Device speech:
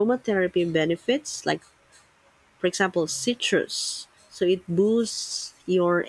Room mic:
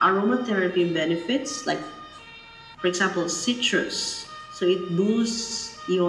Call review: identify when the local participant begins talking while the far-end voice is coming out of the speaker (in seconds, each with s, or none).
none